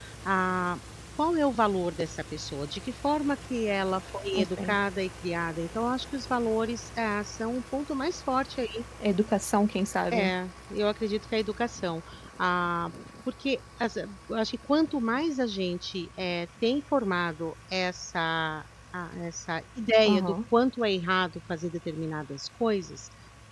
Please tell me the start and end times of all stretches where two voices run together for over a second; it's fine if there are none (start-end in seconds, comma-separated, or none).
none